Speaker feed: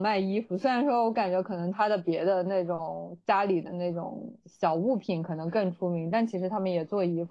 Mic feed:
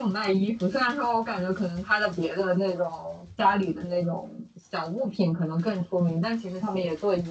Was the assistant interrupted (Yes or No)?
No